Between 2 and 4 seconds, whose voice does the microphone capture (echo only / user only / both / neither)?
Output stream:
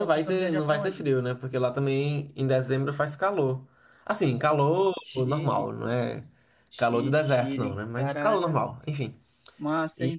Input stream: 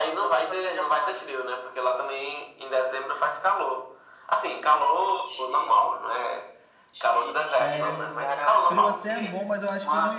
echo only